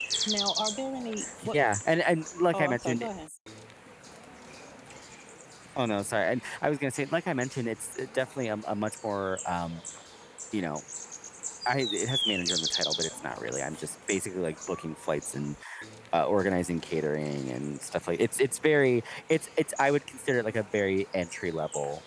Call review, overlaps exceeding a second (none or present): none